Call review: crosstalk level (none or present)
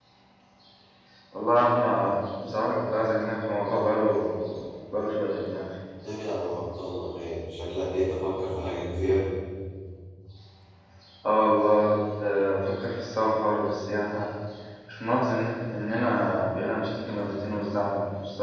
none